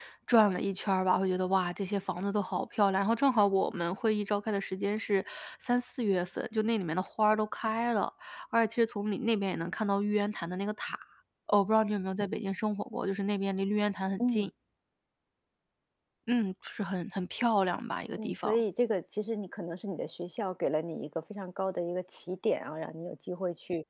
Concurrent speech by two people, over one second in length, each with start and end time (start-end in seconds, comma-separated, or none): none